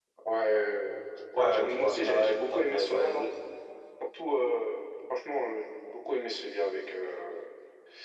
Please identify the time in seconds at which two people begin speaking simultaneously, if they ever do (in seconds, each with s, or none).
1.4 s